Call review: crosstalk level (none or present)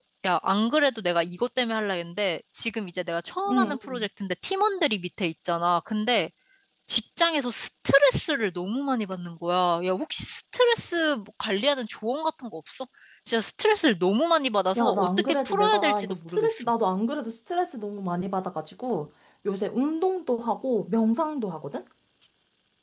present